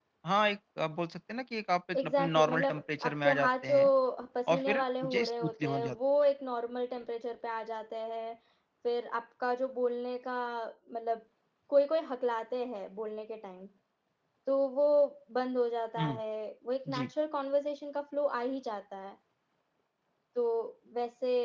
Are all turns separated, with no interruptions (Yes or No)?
No